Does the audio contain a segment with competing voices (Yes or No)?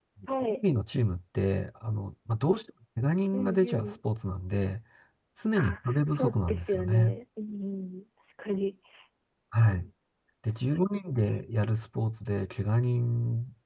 Yes